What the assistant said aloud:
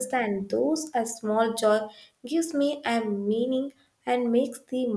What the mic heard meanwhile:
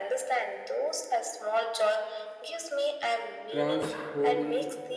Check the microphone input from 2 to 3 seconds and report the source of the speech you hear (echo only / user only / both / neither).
echo only